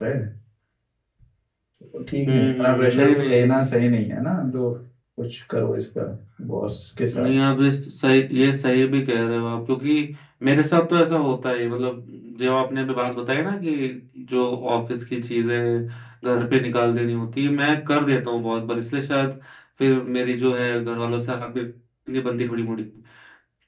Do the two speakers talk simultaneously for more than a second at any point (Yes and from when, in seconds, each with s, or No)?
Yes, from 2.3 s